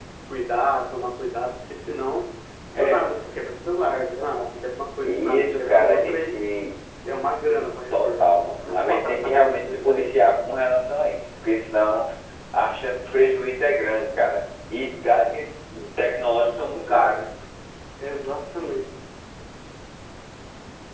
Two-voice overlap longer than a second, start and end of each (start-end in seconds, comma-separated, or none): 5.0-6.4, 7.9-10.2